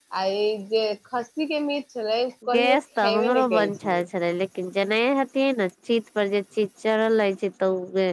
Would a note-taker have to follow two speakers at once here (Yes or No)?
Yes